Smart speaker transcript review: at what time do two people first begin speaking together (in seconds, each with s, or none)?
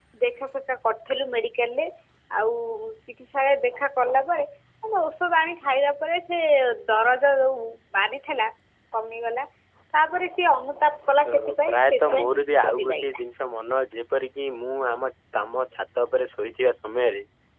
11.2 s